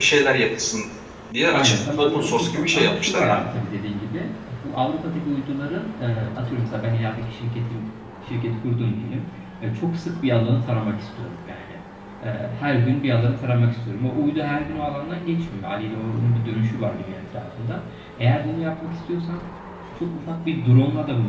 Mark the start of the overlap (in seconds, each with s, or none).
1.5 s